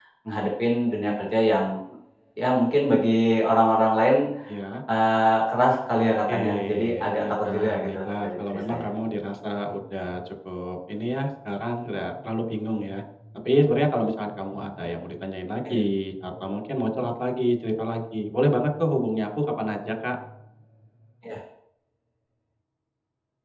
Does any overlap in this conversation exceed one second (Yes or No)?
Yes